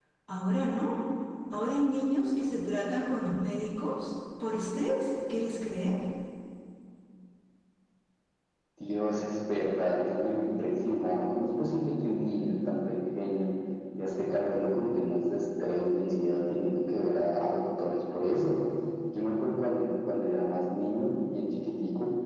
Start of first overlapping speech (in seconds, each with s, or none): none